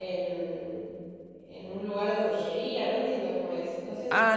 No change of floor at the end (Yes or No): No